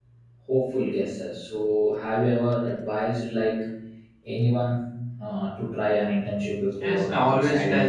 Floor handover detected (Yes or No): Yes